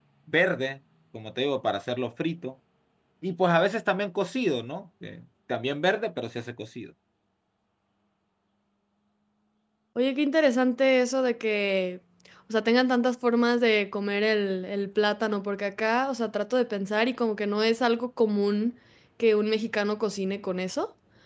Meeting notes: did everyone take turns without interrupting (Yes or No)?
Yes